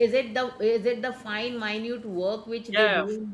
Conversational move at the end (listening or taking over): taking over